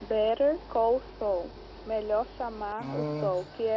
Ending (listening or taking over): listening